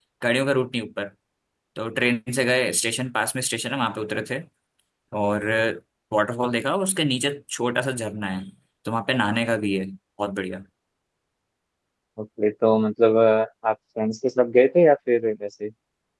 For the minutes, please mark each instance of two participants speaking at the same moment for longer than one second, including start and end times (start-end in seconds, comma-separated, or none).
none